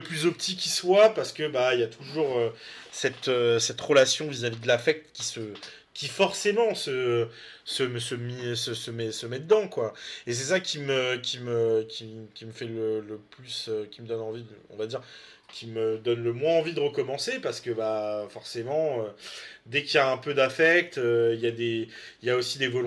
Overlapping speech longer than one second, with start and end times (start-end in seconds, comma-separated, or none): none